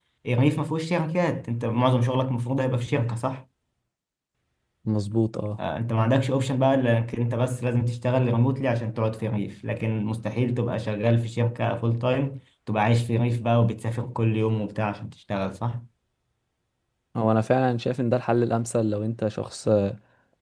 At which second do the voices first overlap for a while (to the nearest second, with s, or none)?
none